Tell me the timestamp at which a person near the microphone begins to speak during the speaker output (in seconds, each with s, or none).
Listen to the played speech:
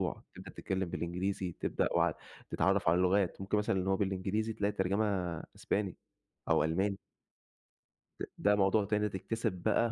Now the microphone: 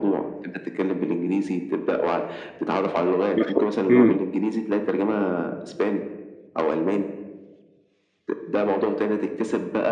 3.4 s